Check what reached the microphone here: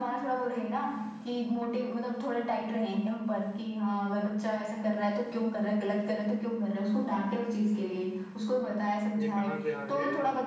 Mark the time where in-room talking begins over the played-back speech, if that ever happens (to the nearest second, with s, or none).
9 s